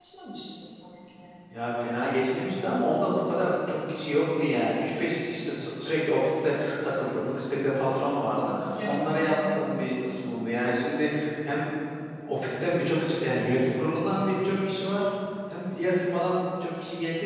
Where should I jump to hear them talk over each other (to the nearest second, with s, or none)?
8 s